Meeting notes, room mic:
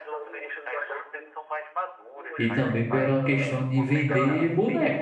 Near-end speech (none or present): present